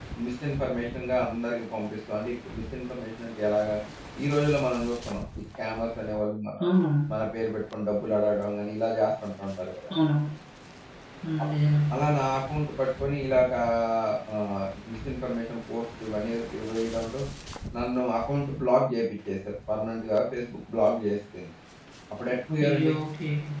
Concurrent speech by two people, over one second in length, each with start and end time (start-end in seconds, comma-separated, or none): none